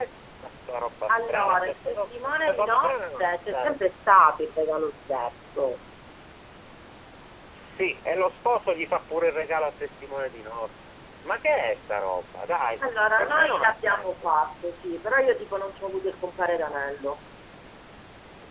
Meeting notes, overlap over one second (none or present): present